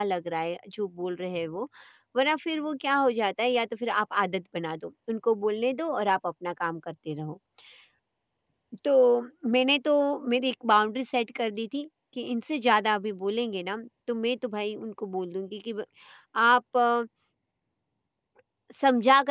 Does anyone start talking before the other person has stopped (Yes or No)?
No